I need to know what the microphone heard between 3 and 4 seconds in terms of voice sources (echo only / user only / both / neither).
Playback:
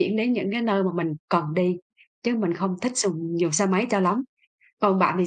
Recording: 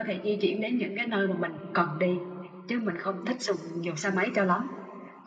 echo only